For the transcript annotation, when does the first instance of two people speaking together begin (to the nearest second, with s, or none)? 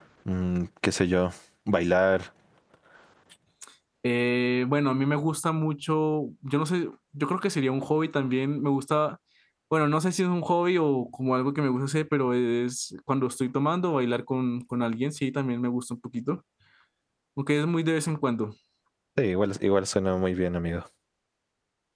none